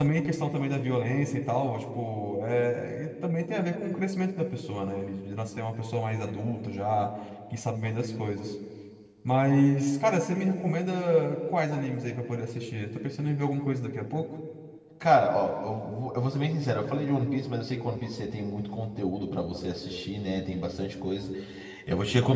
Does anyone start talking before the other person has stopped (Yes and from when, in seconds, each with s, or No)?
No